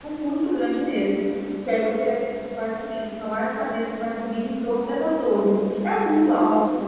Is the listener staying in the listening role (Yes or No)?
Yes